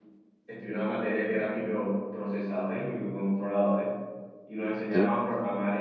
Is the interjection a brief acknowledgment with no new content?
Yes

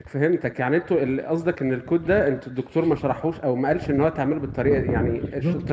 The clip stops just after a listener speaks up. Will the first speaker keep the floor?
No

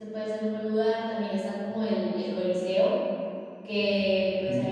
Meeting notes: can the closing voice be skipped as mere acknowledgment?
Yes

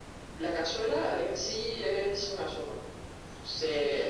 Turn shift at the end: No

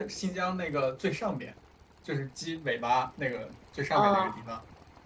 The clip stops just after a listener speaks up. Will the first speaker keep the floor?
Yes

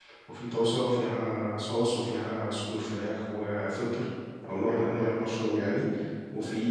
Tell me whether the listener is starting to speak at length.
No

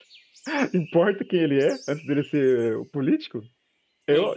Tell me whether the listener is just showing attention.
Yes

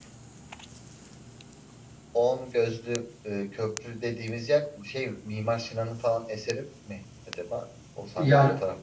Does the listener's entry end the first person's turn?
Yes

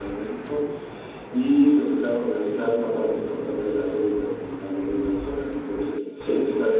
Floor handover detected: No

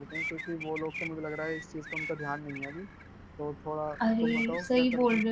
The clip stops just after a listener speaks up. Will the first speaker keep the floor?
No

